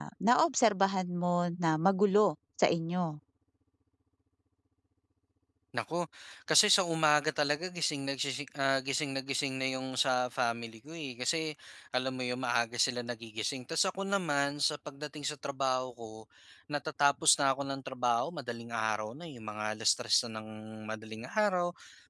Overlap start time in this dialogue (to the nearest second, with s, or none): none